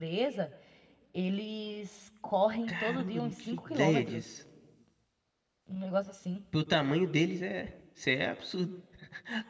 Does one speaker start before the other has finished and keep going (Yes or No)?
Yes